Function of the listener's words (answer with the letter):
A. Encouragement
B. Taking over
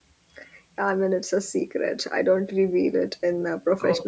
B